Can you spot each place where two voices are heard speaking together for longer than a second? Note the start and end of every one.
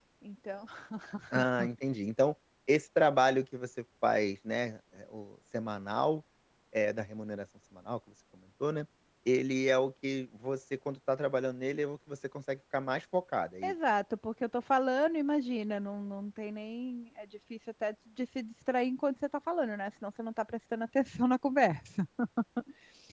none

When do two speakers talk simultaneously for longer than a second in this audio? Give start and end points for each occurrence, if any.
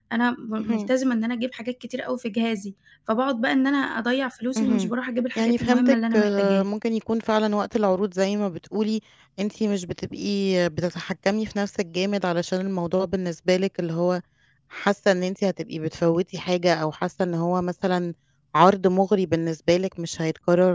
5.4-6.6

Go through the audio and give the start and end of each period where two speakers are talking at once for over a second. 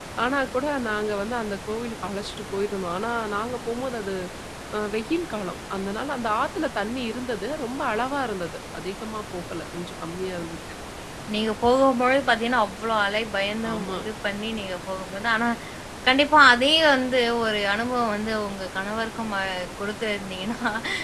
none

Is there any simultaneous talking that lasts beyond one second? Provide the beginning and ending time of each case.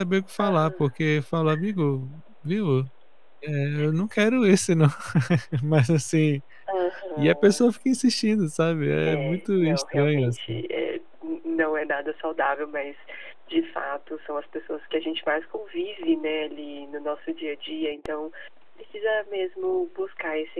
9.1-10.6

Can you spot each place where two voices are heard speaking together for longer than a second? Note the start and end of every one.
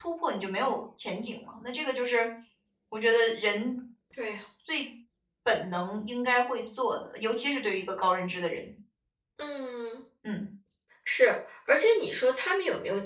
none

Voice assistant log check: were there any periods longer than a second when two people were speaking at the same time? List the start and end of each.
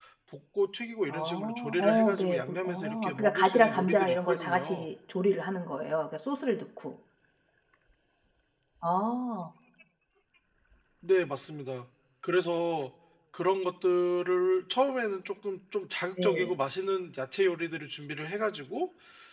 1.1-4.9

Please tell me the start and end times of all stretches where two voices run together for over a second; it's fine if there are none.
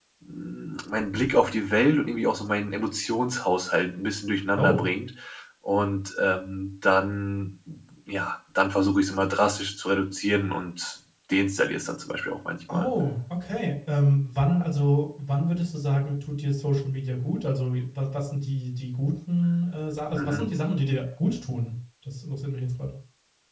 none

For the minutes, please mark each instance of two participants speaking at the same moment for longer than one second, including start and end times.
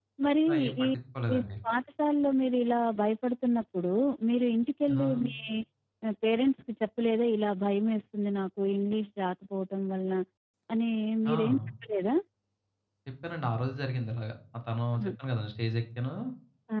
none

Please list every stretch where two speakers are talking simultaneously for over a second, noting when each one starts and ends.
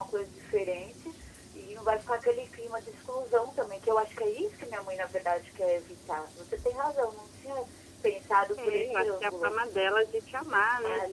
8.6-9.9

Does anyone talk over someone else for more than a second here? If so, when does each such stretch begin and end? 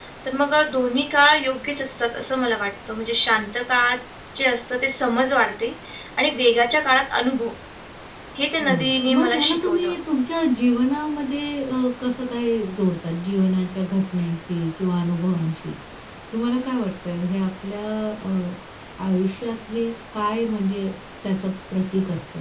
8.6-9.9

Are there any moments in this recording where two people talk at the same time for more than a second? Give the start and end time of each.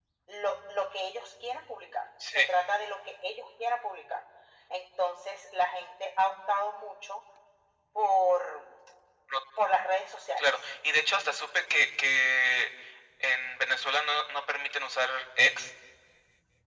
none

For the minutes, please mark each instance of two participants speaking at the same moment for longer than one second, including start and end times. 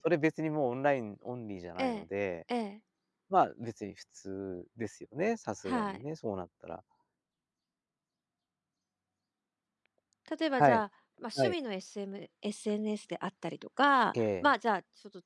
none

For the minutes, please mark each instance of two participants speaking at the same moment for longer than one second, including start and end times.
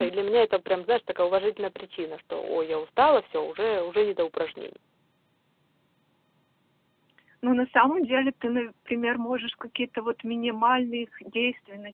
none

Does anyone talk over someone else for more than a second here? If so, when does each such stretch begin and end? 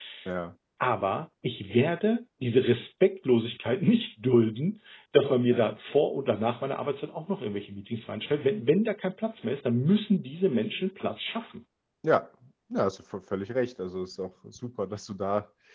none

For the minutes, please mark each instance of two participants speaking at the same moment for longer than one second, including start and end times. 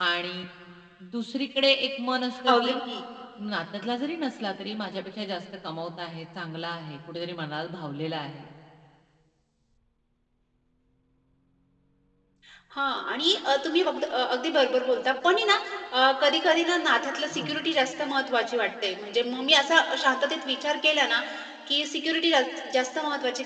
none

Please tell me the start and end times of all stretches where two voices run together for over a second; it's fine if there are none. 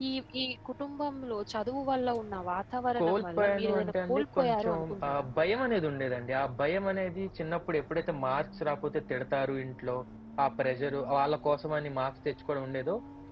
3.0-5.3

